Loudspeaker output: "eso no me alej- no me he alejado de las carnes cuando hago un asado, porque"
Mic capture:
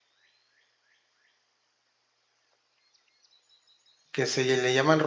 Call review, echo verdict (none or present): none